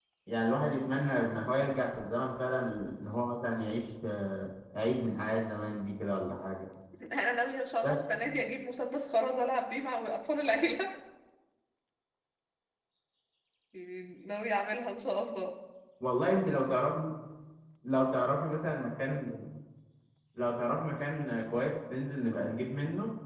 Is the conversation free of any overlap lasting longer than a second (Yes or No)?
Yes